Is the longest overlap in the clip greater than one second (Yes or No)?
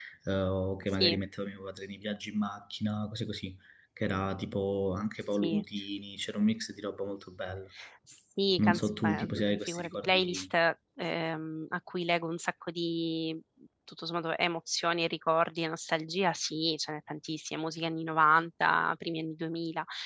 Yes